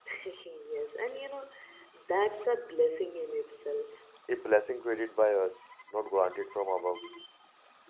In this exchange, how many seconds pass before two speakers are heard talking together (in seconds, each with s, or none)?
none